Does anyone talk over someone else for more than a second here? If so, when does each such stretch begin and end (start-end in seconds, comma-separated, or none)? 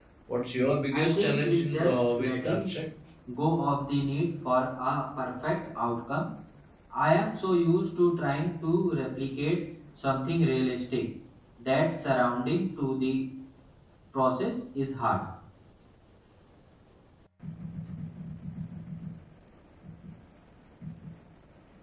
0.9-2.7